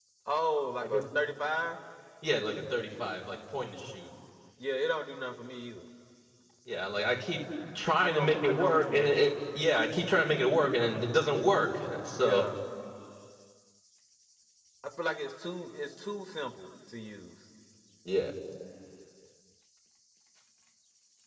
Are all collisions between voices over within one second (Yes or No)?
No